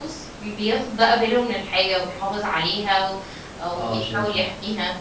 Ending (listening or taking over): taking over